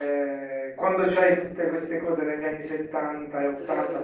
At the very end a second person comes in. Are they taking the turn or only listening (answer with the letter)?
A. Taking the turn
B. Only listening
B